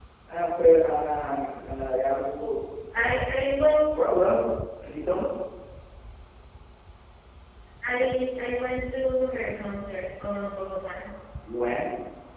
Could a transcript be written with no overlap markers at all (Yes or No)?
Yes